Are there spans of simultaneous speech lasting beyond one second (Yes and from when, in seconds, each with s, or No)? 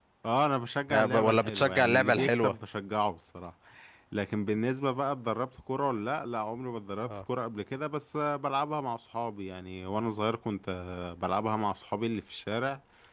Yes, from 0.9 s